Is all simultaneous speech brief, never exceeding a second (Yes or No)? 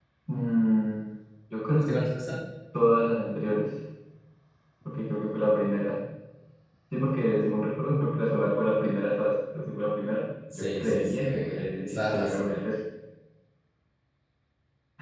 No